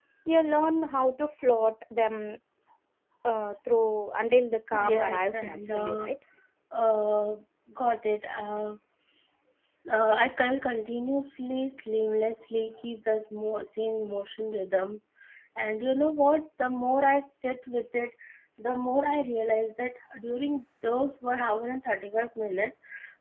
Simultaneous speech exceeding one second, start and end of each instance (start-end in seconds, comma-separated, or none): 4.8-6.1